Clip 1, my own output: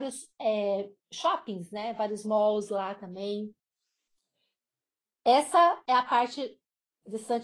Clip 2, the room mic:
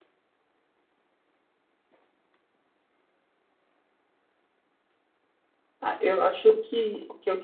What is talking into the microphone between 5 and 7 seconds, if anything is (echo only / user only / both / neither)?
user only